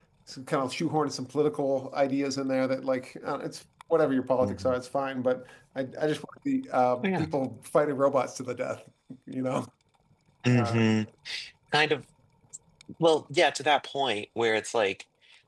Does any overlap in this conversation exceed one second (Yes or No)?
No